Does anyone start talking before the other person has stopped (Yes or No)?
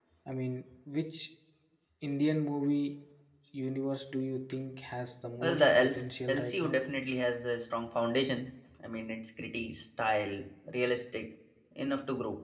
Yes